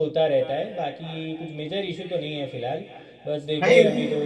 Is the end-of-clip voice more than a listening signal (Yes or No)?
No